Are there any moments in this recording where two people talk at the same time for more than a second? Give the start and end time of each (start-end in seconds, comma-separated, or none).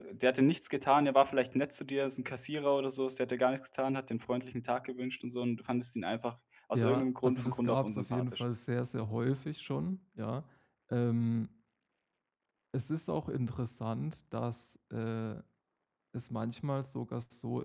6.7-8.4